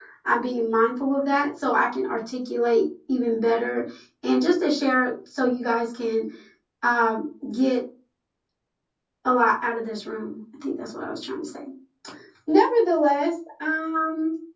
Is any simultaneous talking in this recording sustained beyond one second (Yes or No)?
No